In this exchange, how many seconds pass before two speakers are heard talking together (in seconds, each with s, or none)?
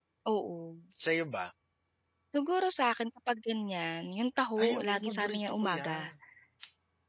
4.6 s